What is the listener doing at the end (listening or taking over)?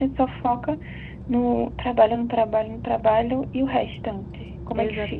taking over